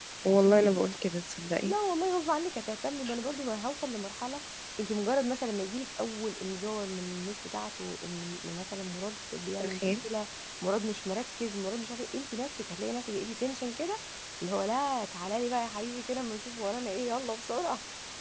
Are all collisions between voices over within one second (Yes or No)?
Yes